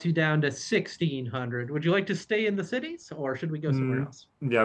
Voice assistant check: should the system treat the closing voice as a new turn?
Yes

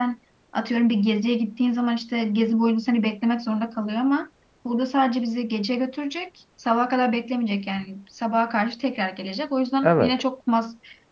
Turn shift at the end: No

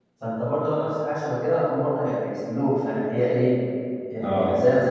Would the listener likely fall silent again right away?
No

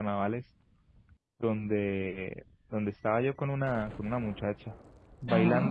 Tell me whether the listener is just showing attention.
Yes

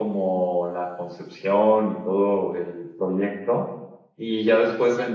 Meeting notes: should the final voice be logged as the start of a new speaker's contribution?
No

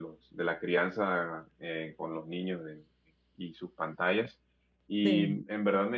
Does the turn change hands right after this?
No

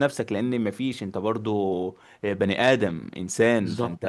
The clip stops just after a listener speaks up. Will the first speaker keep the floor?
Yes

